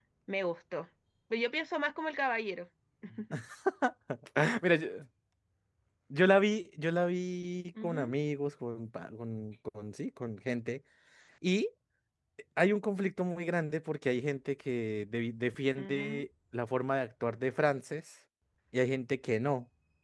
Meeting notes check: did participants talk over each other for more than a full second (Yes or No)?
No